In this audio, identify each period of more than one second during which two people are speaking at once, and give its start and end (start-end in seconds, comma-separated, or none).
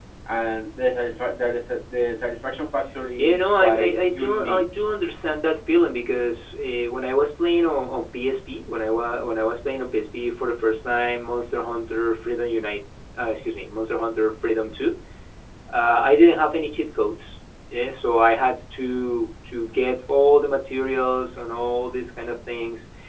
3.2-4.6